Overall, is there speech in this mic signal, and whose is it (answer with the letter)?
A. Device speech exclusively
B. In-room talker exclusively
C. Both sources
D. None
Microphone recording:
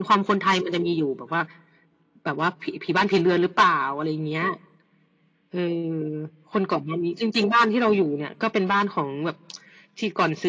A